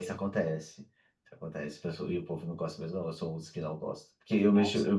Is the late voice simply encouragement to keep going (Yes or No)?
Yes